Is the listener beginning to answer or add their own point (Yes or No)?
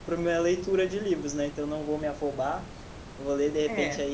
No